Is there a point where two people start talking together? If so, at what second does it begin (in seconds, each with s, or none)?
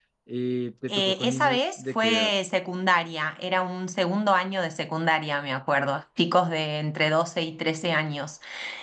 0.9 s